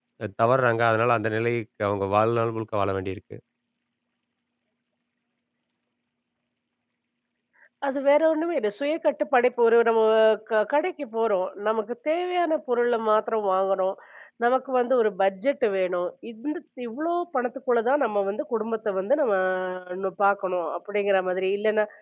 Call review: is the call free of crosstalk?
Yes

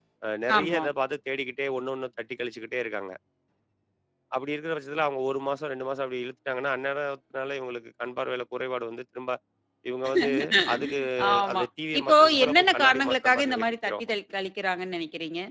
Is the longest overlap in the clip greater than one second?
Yes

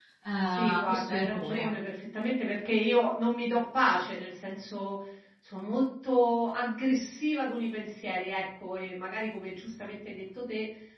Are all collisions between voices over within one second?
No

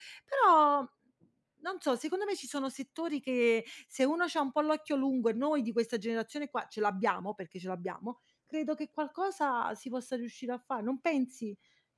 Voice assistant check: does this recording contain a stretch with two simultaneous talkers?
No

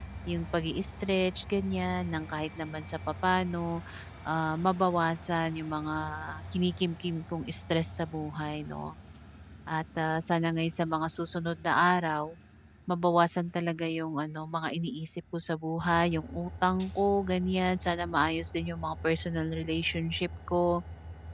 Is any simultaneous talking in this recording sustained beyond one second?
No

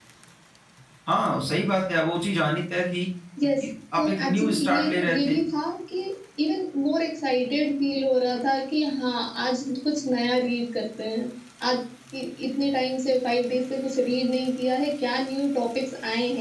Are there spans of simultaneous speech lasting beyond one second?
Yes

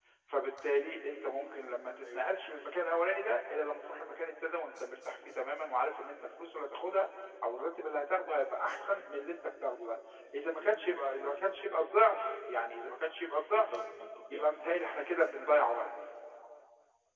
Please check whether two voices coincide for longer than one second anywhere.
No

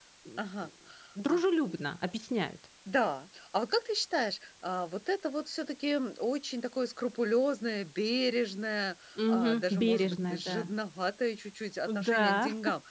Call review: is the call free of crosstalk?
No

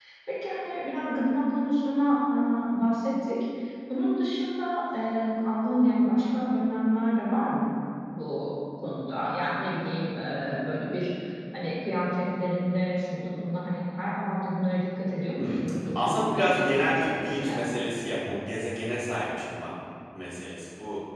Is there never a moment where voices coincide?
No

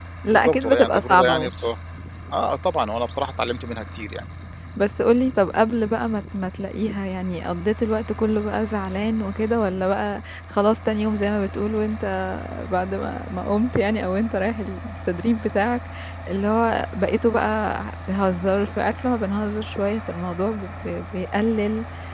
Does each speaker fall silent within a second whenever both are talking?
No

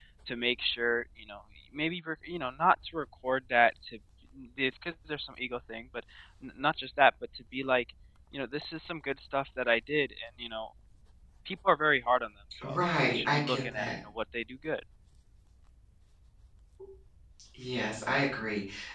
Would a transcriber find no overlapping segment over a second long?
No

